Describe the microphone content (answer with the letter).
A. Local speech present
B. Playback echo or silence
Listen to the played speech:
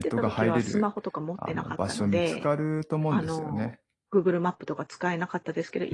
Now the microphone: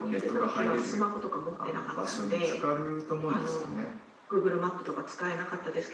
B